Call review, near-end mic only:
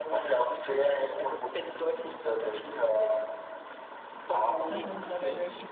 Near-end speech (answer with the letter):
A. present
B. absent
A